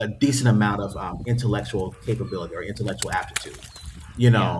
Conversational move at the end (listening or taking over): listening